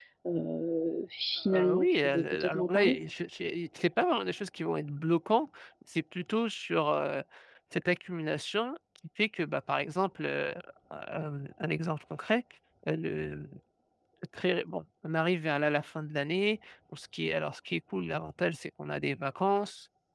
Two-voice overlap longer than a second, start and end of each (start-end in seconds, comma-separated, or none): 1.5-3.0